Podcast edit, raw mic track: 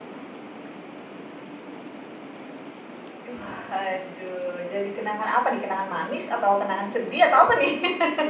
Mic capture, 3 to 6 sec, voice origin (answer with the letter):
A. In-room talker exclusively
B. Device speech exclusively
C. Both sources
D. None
A